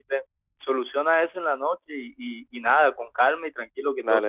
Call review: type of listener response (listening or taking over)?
taking over